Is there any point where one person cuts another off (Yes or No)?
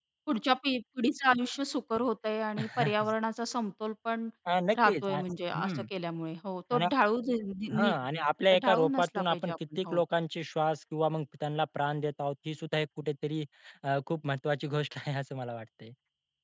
Yes